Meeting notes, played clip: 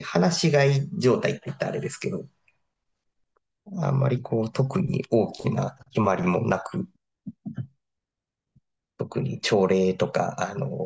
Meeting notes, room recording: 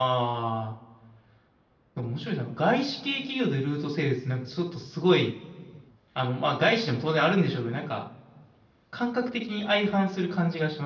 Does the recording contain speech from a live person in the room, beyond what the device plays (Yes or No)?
Yes